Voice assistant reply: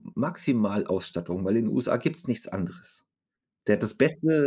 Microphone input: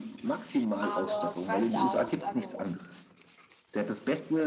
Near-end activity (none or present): present